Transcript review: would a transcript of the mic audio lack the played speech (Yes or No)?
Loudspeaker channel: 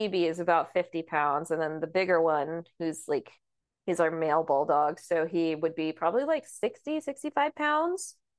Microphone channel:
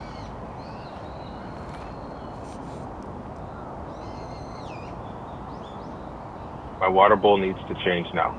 Yes